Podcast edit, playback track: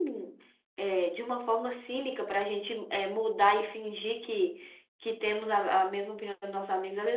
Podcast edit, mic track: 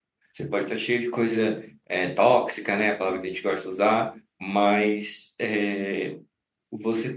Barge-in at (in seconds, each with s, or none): 0.3 s